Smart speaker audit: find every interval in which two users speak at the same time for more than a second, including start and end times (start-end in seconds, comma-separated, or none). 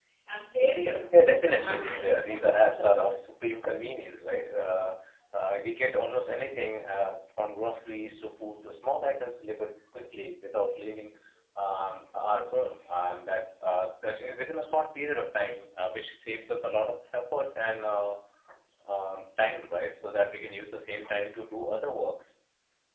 1.5-2.9